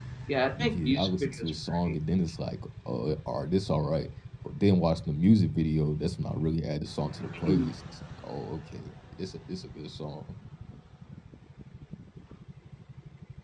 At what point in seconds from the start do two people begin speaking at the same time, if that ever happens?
1 s

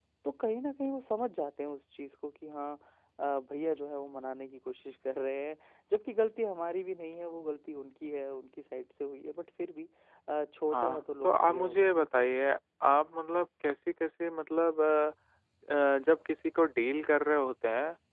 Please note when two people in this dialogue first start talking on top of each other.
11 s

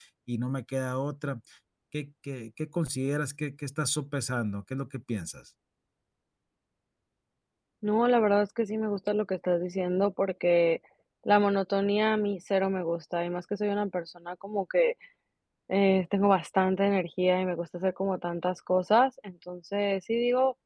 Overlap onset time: none

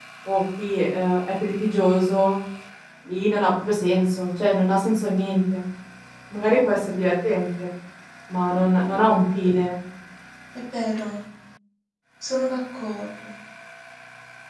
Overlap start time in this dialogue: none

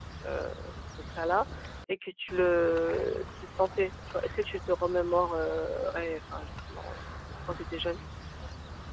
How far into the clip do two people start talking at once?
none

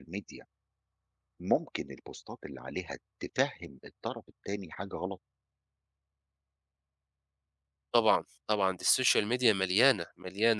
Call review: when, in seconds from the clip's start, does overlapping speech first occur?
none

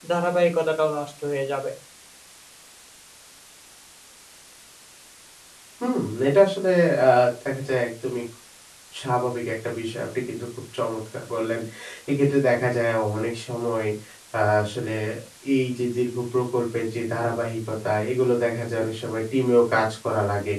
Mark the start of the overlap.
none

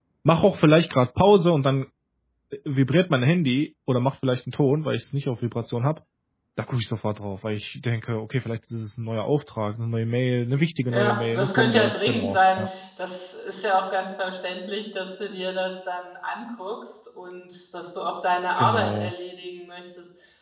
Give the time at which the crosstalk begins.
11 s

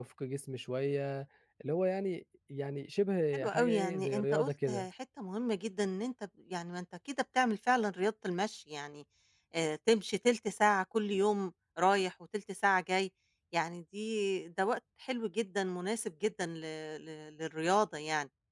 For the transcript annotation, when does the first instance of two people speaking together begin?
3 s

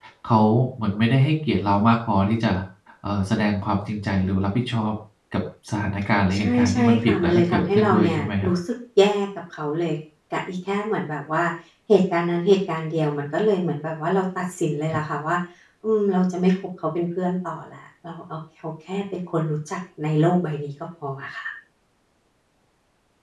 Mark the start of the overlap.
6 s

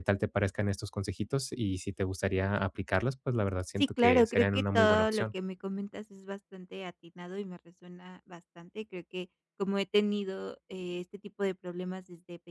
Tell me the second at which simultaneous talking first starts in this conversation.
4 s

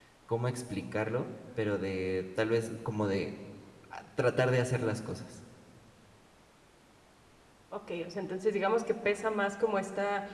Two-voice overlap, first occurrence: none

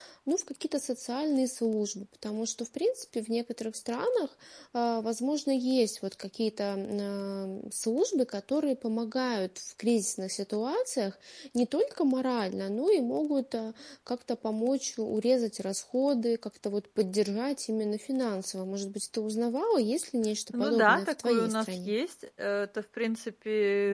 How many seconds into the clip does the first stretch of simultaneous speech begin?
21 s

